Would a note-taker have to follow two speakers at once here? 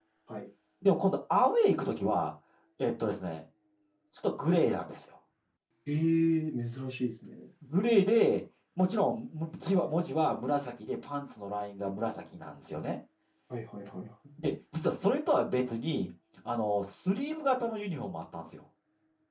No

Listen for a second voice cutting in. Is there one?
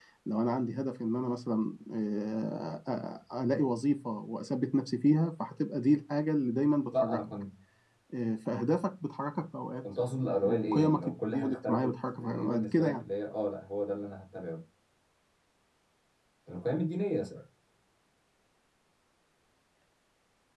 Yes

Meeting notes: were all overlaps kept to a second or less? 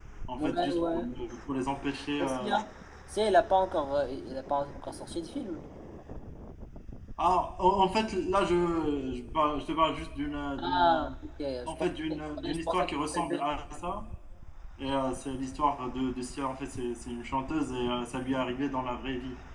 No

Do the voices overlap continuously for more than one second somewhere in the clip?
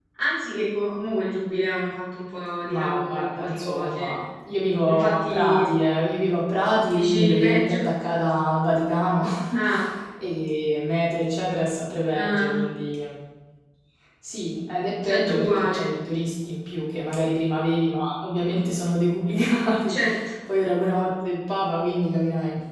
Yes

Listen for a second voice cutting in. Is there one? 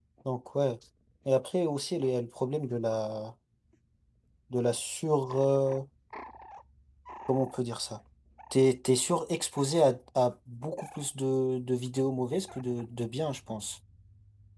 No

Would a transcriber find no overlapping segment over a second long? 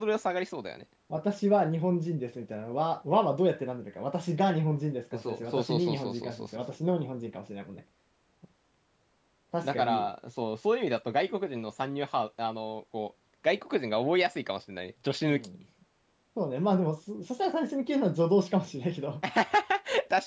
No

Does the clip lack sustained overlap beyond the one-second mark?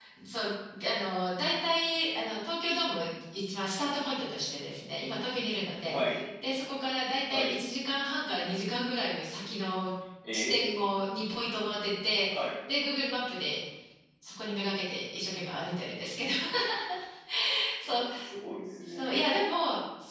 Yes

